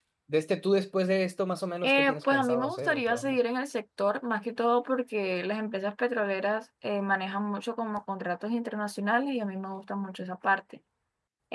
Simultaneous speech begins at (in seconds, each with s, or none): 1.8 s